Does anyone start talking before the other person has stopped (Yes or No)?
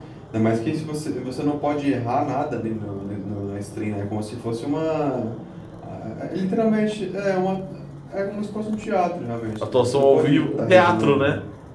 Yes